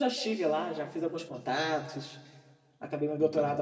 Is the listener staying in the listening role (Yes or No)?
Yes